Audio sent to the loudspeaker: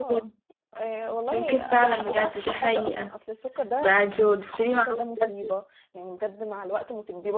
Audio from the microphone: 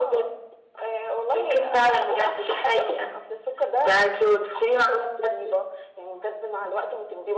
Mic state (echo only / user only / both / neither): echo only